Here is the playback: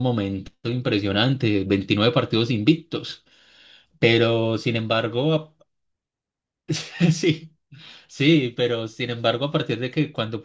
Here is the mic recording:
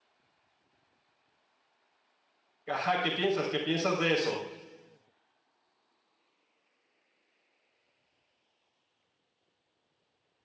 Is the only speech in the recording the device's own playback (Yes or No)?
No